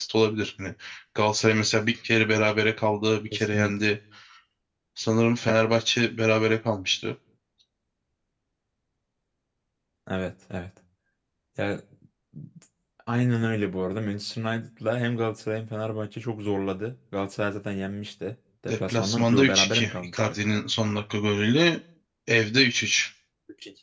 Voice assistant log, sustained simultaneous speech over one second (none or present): present